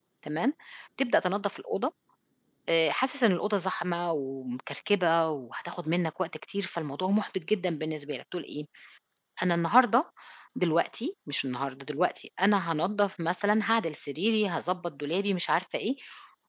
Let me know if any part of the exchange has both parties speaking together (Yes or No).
No